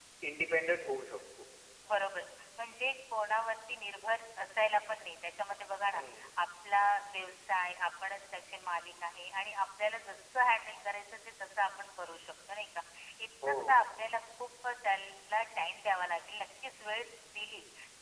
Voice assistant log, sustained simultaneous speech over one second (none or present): none